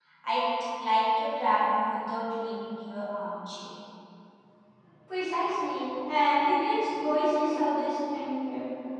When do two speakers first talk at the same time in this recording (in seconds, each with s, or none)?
none